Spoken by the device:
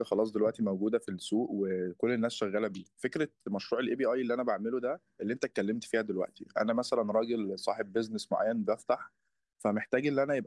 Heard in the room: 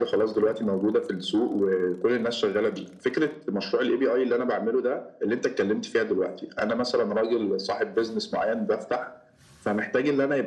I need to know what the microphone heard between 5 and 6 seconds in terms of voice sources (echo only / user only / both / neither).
echo only